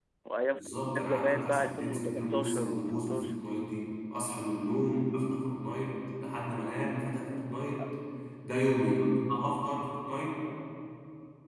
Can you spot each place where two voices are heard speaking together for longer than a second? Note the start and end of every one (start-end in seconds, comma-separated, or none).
0.6-3.2